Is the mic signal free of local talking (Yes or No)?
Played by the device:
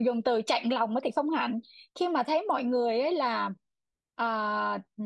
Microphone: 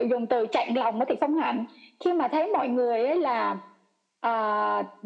Yes